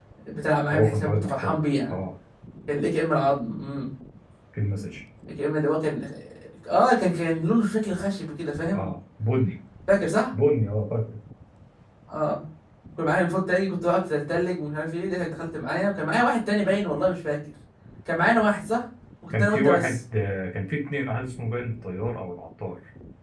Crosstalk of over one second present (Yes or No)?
Yes